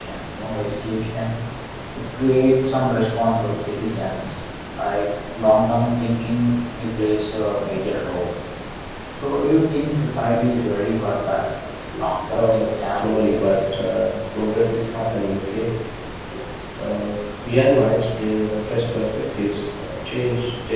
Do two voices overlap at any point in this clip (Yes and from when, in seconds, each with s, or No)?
Yes, from 12.2 s